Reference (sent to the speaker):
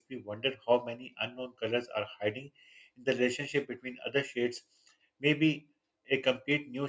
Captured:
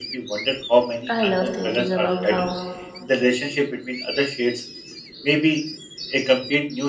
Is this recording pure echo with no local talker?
No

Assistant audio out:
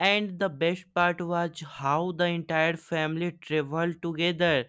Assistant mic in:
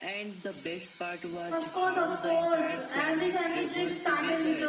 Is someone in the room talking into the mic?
Yes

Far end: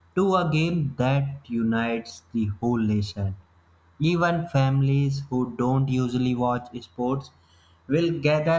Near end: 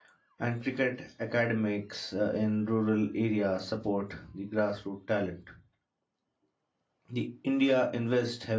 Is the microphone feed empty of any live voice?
No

